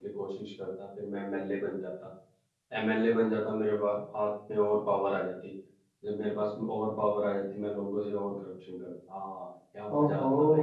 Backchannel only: No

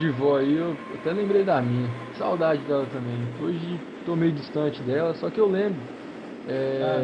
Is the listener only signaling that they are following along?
Yes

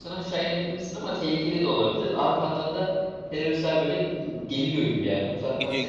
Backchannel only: No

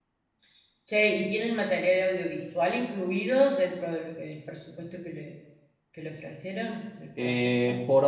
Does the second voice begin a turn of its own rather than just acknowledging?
Yes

